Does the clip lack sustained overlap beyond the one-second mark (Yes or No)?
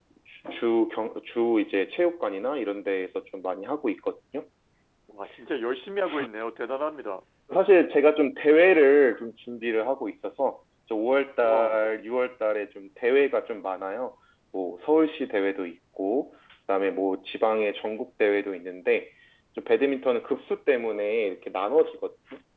Yes